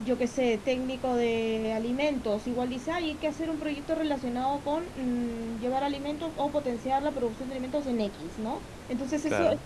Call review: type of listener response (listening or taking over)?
listening